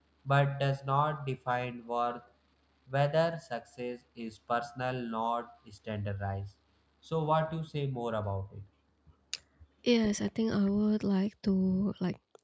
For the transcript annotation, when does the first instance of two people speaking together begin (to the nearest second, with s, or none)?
none